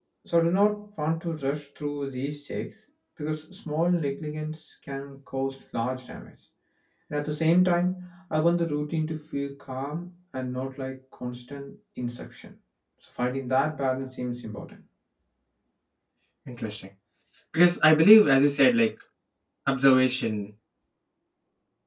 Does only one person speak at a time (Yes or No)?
Yes